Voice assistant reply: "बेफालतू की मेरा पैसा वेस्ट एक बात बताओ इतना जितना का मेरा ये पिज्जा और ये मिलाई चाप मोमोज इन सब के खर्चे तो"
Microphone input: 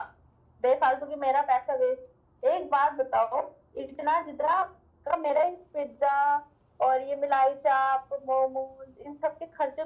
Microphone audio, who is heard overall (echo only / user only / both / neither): echo only